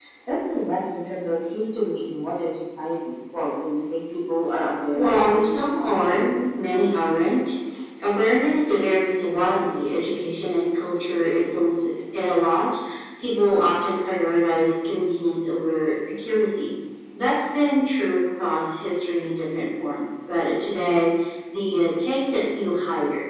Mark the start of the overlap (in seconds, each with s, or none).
5.0 s